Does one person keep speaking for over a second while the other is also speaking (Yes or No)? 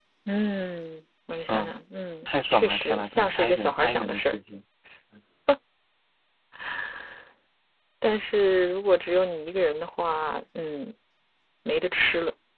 Yes